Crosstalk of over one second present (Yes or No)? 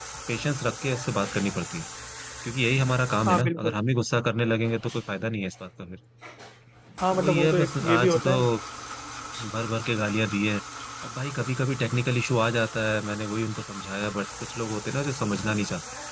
Yes